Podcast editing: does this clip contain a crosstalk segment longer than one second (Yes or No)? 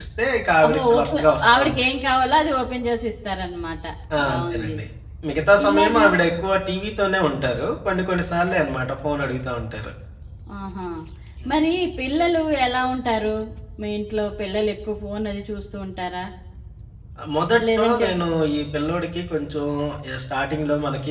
Yes